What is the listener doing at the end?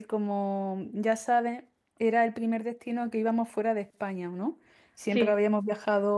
listening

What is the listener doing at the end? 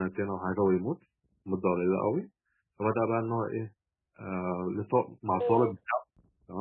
listening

